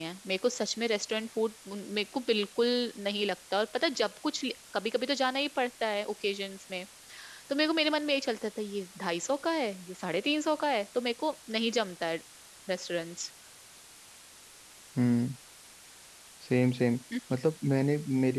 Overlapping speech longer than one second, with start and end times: none

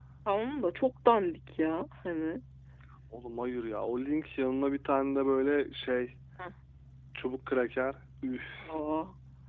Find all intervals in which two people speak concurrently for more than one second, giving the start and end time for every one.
none

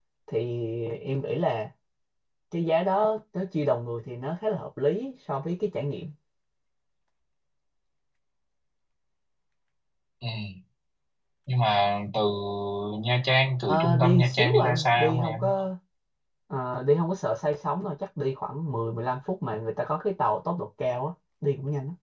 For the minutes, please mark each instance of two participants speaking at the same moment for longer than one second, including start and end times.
13.6-15.4

